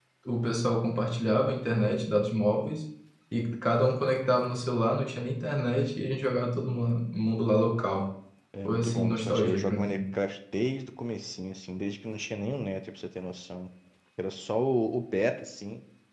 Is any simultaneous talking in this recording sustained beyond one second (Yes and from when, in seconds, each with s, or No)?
Yes, from 8.6 s